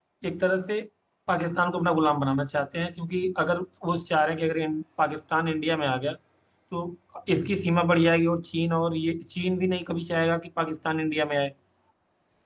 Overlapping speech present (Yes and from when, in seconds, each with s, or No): No